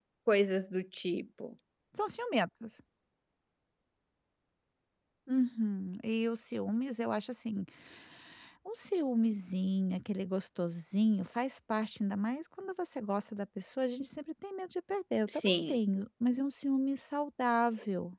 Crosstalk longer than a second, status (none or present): none